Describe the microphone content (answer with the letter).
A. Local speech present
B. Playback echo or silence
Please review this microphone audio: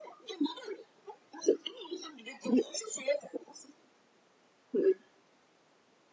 B